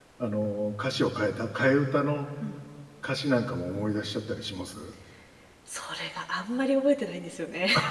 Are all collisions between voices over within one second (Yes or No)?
Yes